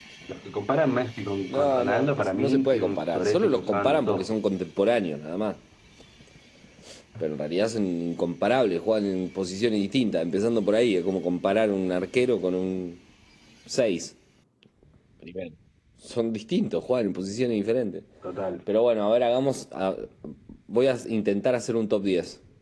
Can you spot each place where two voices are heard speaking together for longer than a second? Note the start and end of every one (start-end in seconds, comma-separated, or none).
1.5-4.4